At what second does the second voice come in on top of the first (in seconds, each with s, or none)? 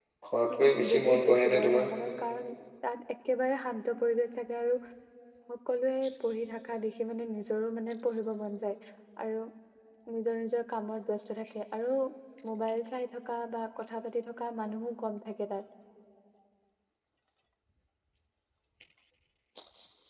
0.5 s